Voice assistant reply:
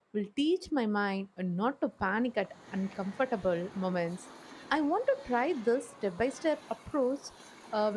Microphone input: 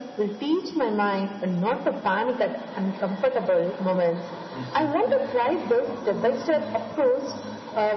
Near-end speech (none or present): present